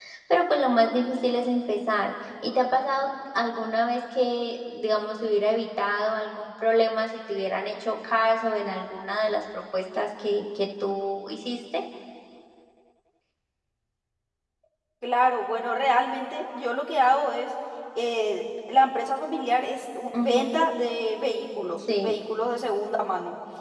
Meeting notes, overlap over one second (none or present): none